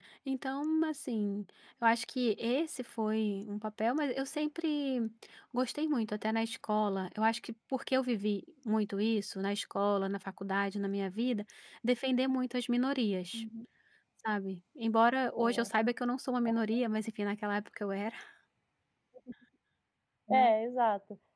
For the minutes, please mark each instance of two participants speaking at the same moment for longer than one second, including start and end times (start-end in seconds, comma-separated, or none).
none